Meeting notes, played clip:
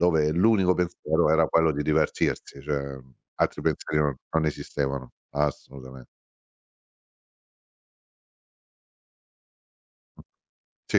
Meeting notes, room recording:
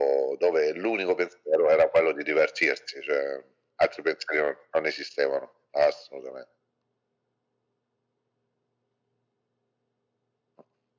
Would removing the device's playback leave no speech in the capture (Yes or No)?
Yes